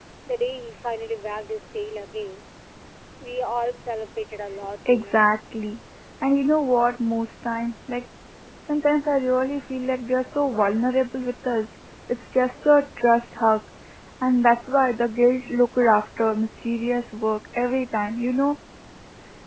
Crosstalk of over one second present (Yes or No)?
No